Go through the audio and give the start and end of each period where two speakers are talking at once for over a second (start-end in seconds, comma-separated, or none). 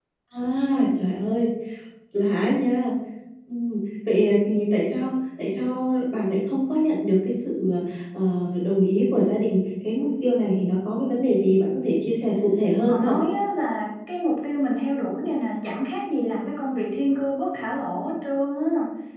none